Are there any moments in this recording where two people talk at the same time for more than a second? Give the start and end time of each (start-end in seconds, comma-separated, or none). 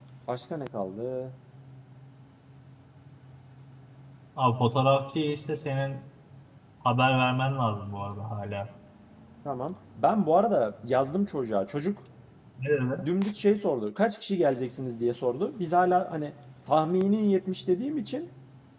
none